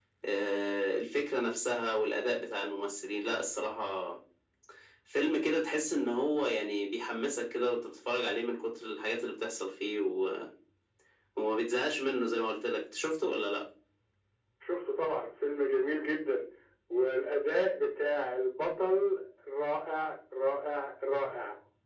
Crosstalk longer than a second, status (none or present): none